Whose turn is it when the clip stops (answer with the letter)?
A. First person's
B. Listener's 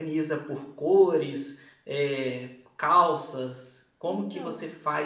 A